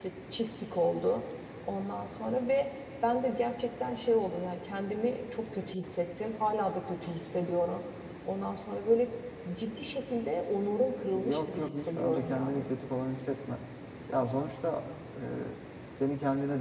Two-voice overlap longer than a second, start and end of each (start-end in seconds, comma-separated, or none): 11.1-12.7